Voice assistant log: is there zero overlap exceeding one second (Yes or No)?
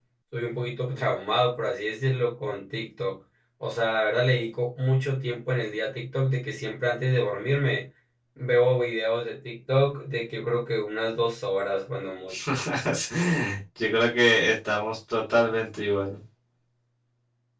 Yes